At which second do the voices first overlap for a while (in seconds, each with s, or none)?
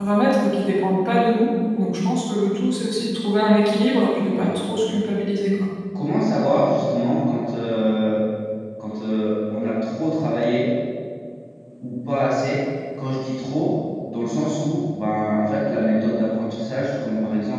none